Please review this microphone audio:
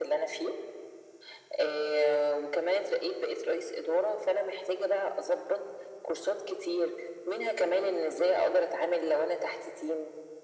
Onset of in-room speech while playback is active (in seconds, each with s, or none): none